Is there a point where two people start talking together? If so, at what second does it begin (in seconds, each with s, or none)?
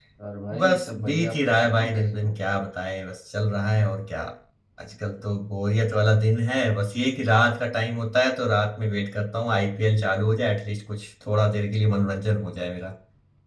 0.6 s